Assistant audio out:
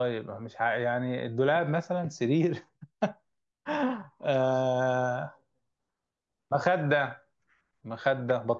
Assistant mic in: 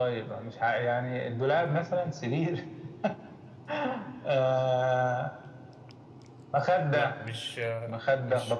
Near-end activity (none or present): present